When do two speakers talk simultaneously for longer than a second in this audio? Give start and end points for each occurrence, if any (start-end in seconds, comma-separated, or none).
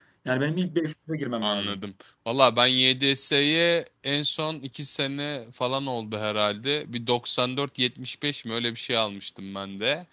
none